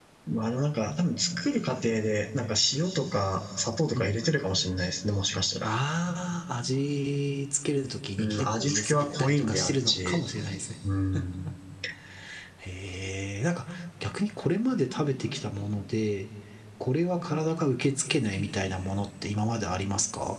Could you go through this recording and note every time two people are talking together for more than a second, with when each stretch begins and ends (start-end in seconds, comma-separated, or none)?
8.2-10.2